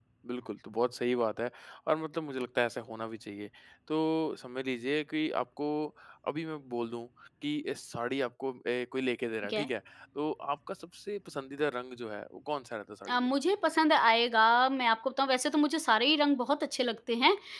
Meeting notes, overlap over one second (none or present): none